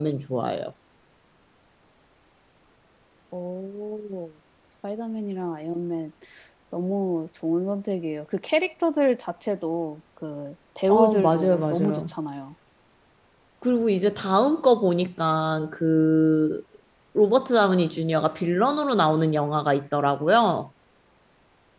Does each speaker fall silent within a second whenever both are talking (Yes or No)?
No